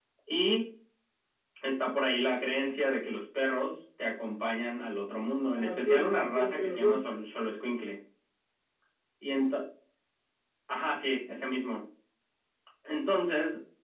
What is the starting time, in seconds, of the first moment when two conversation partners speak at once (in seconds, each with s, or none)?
5.5 s